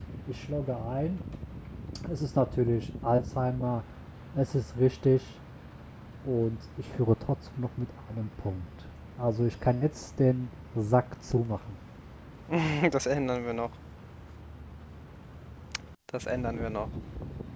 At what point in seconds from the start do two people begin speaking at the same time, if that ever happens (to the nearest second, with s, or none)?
none